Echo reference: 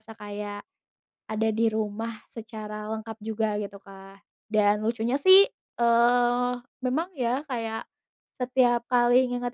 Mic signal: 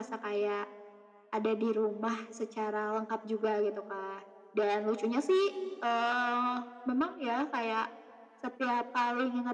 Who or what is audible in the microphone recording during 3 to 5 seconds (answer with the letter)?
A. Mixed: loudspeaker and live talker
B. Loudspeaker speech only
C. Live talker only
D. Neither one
B